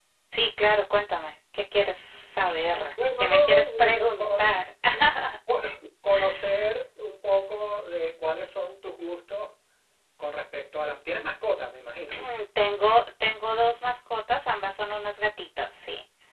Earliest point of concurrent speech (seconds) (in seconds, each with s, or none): 3.2 s